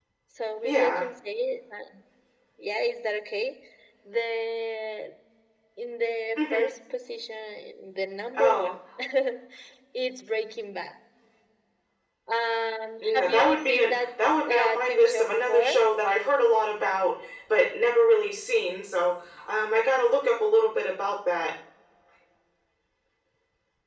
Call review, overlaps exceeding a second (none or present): present